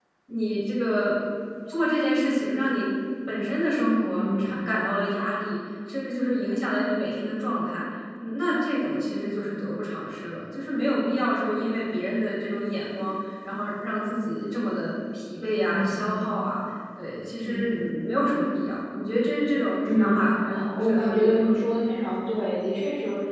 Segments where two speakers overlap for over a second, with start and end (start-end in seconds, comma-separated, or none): 20.0-21.5